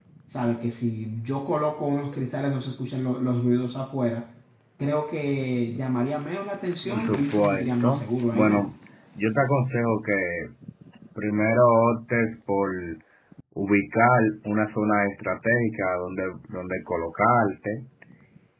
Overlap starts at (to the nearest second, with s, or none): 7 s